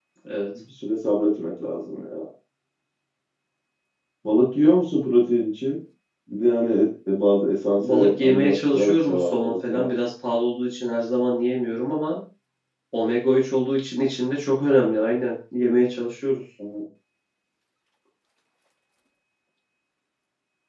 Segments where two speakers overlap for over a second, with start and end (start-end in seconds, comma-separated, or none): 7.8-9.9